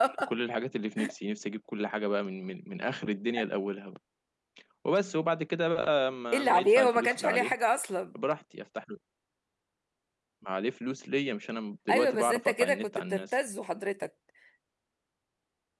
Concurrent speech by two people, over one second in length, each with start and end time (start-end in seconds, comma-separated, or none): 6.3-7.5, 11.9-13.2